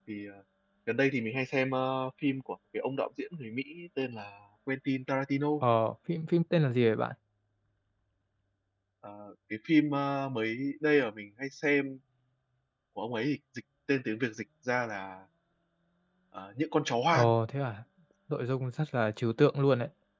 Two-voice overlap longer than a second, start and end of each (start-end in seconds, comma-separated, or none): none